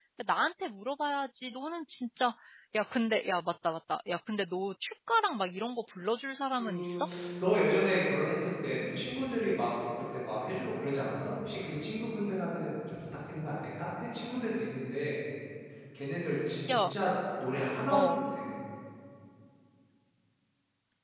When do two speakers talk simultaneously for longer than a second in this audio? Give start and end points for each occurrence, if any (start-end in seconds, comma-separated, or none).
none